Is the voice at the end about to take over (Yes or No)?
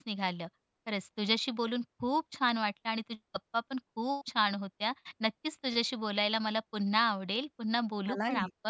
No